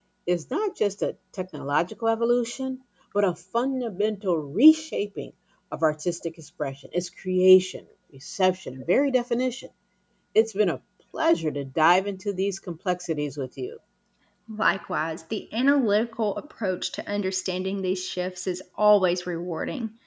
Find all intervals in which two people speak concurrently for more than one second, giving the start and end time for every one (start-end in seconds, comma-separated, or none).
none